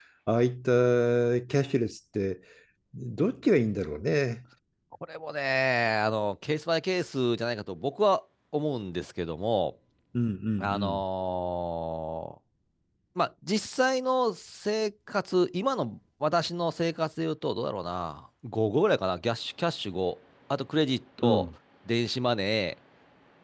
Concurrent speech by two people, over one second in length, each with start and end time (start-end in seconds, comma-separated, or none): none